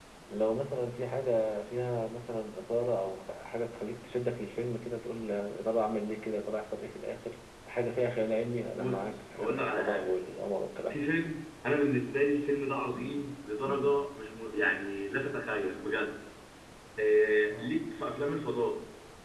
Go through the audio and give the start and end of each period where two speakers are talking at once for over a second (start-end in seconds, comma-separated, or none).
8.7-10.1